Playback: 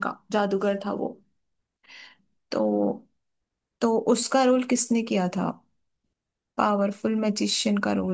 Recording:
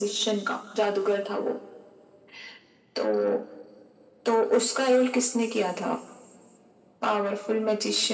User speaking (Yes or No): No